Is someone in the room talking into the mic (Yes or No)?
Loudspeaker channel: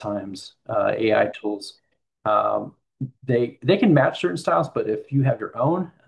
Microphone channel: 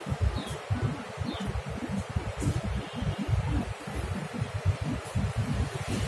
No